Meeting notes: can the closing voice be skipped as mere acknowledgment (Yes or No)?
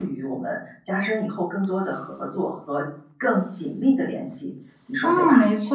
No